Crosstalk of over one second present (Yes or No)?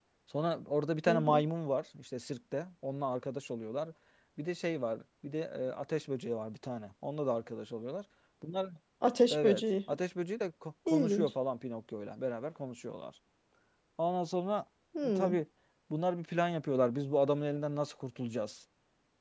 No